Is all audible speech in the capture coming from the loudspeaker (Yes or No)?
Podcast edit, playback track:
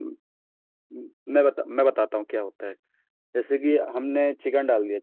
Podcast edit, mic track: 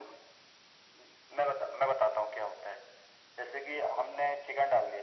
Yes